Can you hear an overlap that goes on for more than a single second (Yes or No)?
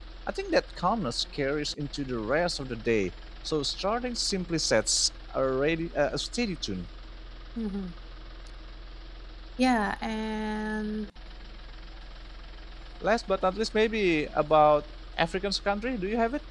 No